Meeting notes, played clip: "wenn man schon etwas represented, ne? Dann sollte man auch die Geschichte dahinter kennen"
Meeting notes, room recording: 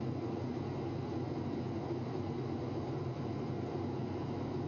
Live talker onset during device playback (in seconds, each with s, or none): none